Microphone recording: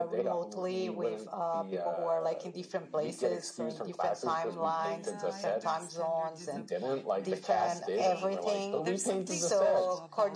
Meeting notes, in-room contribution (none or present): present